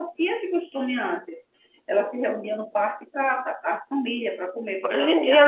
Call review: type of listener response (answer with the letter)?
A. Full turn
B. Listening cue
A